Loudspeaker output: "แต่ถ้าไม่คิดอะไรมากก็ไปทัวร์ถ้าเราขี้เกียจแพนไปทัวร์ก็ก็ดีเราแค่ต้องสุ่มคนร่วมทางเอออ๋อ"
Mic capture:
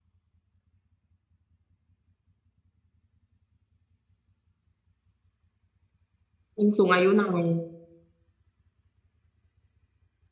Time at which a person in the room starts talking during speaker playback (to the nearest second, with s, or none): 7 s